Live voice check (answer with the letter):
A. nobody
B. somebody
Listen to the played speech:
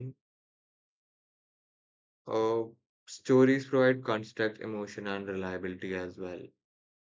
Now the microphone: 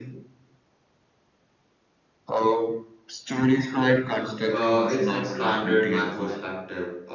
B